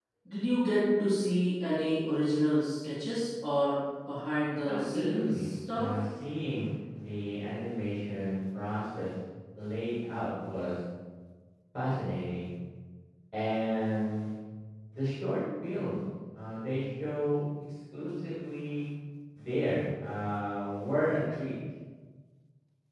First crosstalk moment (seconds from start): 4.7 s

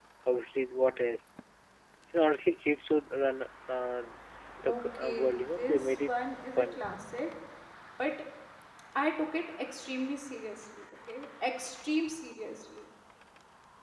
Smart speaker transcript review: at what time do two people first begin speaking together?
4.7 s

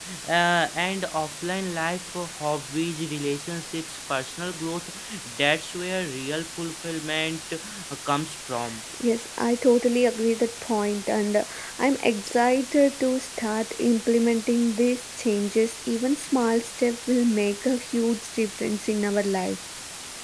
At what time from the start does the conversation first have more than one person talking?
none

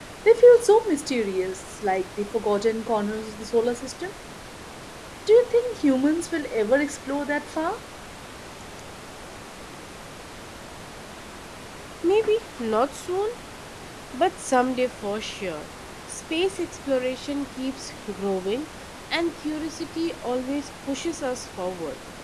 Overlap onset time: none

